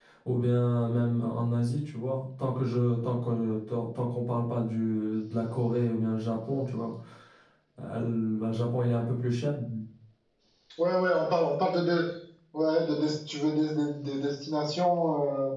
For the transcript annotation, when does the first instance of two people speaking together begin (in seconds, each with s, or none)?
none